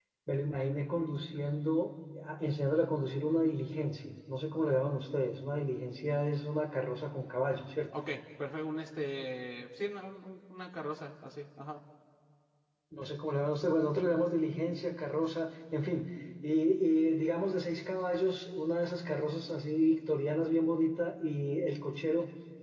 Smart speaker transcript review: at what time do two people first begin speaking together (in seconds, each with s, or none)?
none